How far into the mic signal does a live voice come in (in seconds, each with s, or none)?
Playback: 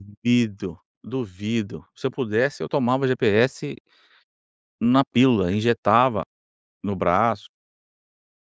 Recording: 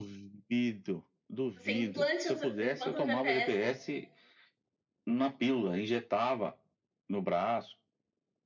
1.6 s